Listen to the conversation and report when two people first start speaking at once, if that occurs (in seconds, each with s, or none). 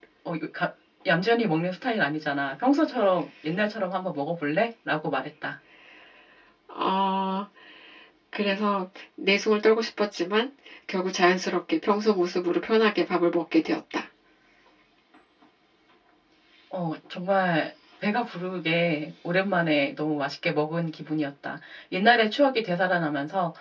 none